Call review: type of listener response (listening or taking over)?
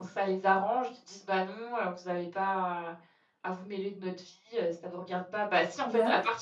listening